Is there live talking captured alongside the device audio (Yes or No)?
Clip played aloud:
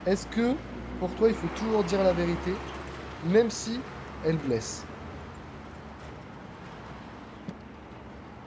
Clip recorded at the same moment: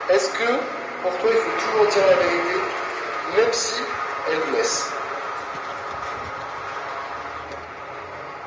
No